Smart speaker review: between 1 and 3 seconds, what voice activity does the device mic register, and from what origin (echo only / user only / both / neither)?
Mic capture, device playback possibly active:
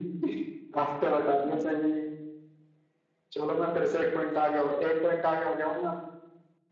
echo only